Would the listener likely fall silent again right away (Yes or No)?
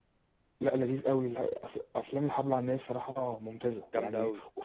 Yes